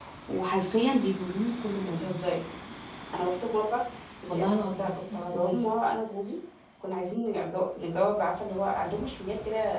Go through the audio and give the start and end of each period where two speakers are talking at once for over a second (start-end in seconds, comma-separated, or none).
4.3-5.6